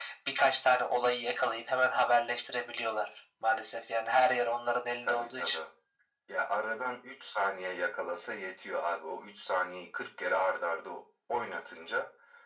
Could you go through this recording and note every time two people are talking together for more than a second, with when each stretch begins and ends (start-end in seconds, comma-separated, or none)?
none